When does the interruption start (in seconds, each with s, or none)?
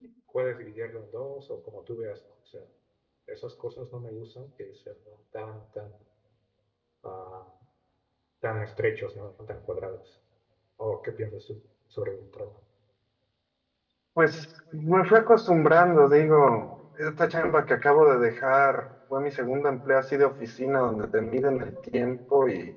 none